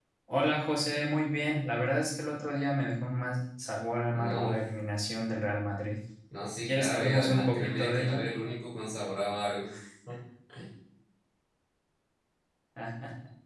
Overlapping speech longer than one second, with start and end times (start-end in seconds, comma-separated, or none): 6.7-8.3